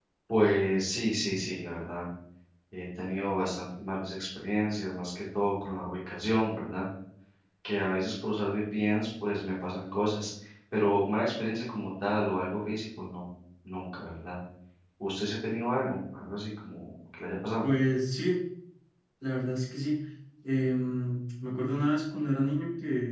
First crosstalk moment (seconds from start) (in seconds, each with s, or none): none